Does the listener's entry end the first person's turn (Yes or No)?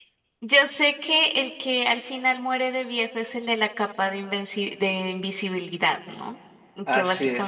No